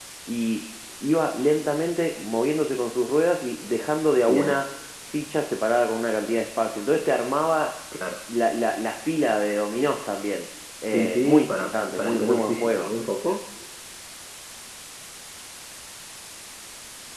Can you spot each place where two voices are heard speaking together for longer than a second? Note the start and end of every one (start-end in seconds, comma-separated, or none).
10.8-12.9